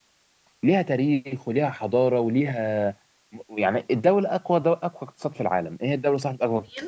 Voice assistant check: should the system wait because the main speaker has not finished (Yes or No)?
Yes